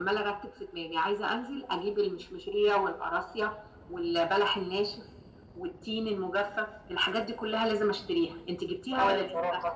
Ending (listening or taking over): taking over